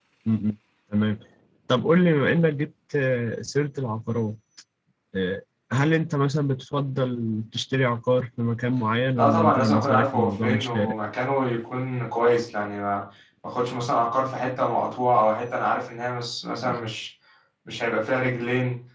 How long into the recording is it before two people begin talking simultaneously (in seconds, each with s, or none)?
9.2 s